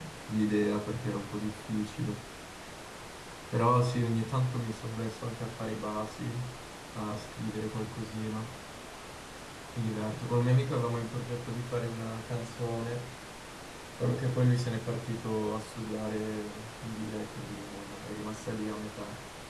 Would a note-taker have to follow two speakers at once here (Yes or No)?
No